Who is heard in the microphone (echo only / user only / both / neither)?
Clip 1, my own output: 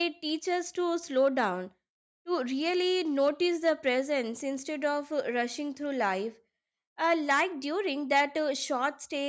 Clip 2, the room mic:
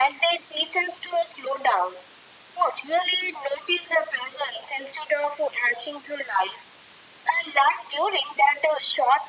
echo only